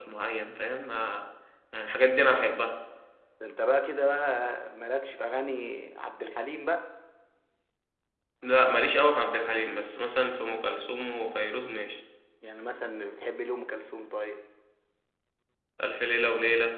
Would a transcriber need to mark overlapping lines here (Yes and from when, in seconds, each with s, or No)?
No